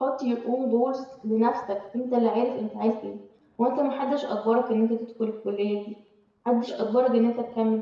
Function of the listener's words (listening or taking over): listening